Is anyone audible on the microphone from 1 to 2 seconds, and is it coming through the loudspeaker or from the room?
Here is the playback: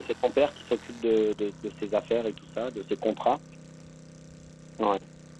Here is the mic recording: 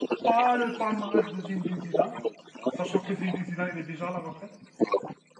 both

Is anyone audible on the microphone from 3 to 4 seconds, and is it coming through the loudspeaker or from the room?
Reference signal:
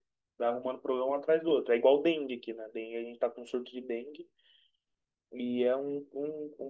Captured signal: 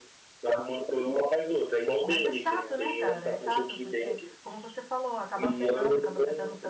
both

